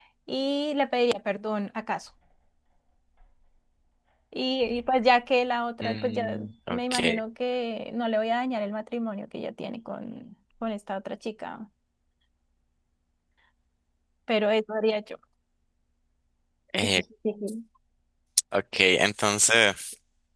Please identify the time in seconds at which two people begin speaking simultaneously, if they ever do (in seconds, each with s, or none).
5.8 s